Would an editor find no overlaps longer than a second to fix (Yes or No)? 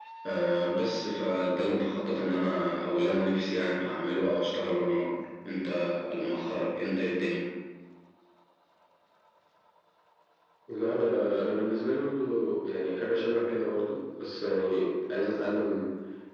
Yes